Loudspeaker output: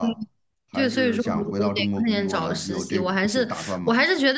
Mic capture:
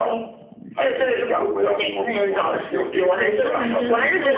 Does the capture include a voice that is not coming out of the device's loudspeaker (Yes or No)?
Yes